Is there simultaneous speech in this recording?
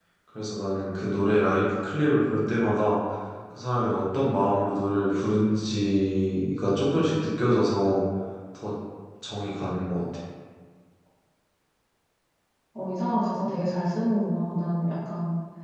No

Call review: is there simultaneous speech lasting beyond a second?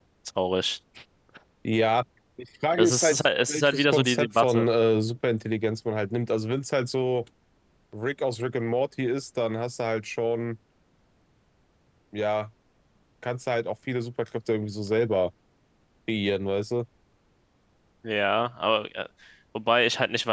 Yes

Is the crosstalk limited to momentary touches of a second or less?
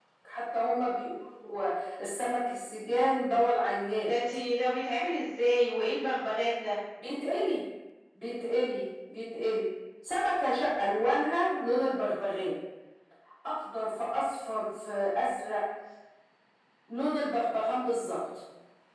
Yes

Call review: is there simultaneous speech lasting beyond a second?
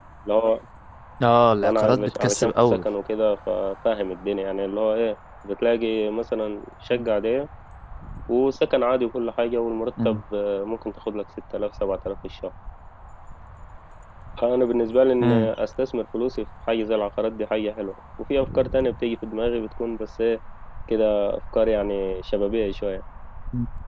Yes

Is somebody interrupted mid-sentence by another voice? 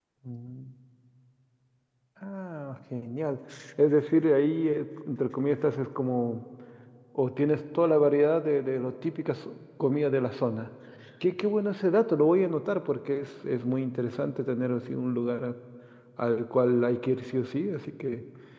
No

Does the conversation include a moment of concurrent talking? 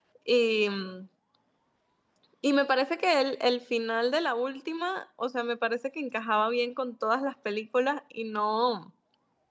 No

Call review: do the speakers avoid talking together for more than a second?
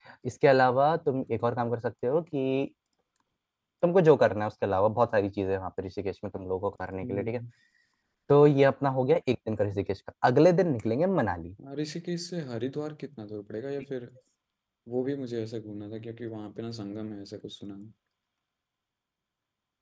Yes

